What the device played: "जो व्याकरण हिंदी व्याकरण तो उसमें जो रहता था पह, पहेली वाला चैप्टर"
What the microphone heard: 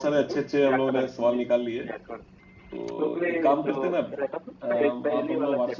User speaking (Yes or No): Yes